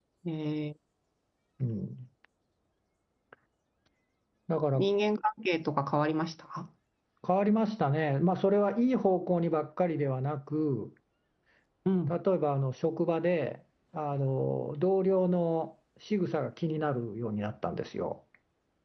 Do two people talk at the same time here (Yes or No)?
No